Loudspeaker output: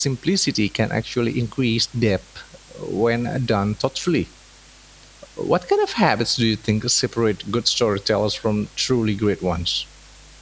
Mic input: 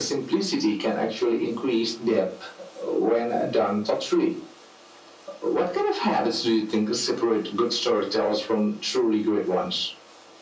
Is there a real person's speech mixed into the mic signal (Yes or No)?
No